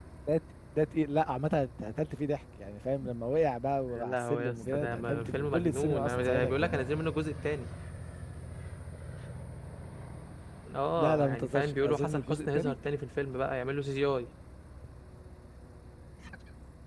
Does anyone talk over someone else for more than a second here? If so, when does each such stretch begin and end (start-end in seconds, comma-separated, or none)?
3.9-6.8, 11.0-12.7